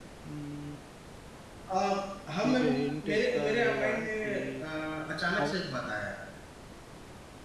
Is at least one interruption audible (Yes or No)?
Yes